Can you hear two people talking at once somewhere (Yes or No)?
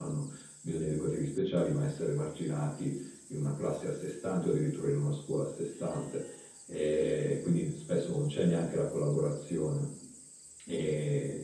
No